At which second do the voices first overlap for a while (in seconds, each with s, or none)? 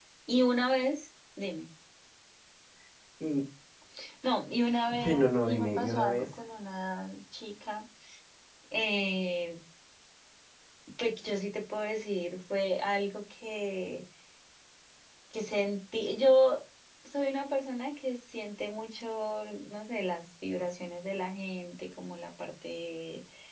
5.0 s